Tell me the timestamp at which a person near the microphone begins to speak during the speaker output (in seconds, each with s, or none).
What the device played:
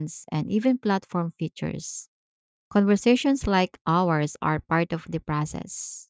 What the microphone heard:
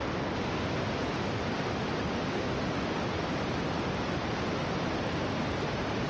none